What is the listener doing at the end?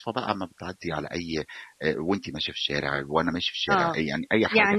taking over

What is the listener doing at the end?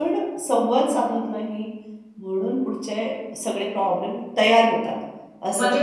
taking over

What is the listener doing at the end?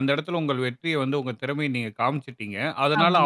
listening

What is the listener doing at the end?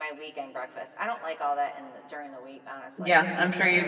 taking over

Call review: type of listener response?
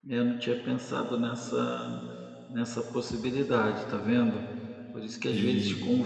listening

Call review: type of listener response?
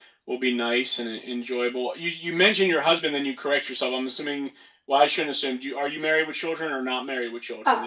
taking over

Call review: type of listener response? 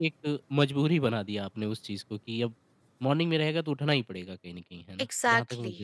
taking over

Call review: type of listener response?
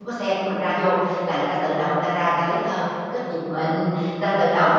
listening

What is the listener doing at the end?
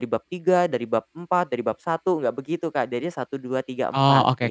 taking over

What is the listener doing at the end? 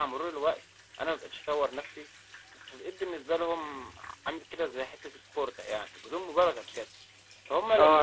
taking over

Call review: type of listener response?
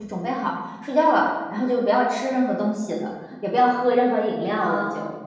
taking over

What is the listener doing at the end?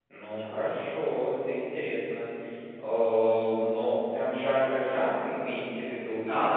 taking over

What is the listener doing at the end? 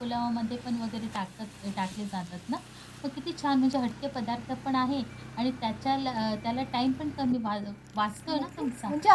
taking over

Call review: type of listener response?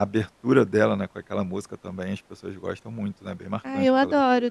taking over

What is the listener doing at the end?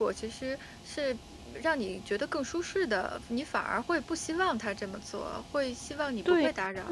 taking over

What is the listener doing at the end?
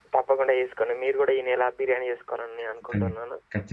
taking over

